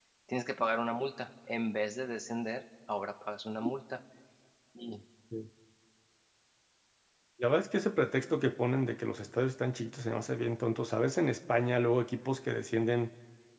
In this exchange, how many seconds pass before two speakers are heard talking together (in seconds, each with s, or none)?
none